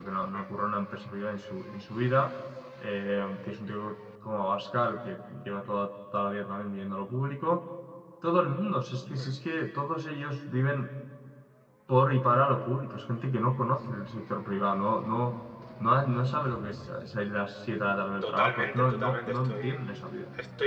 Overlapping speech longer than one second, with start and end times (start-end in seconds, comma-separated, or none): 18.2-19.8